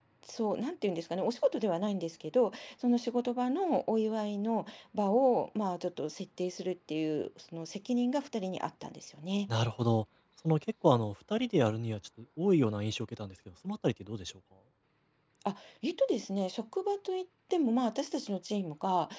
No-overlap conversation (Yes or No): Yes